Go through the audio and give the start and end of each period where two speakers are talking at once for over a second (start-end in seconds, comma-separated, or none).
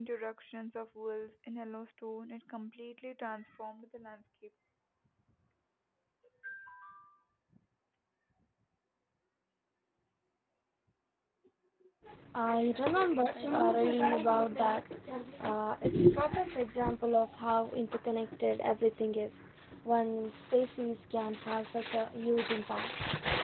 13.3-14.8